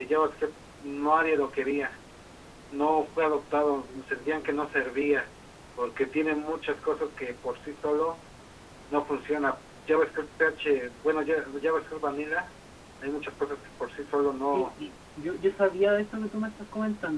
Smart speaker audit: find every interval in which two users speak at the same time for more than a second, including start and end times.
3.3-4.7

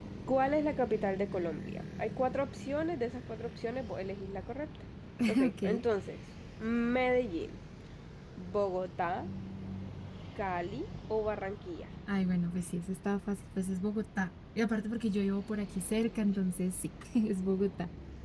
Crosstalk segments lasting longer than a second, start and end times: none

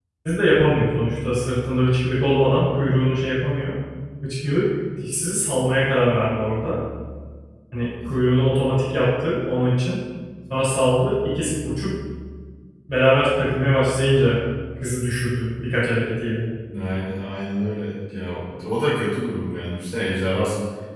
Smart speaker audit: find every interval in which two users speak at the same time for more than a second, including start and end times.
none

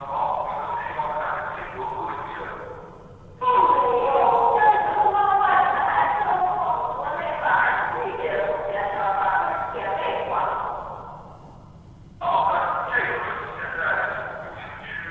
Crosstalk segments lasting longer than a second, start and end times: none

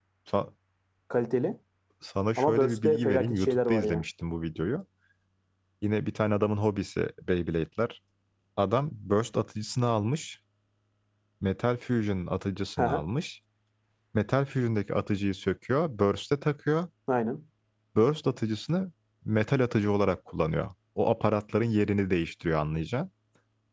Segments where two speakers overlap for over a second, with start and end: 2.4-4.0

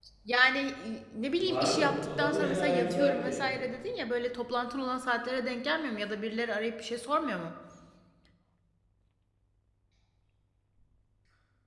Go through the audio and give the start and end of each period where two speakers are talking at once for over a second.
1.3-3.4

